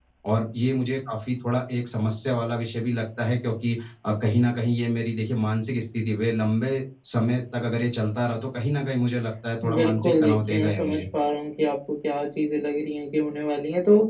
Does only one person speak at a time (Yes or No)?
No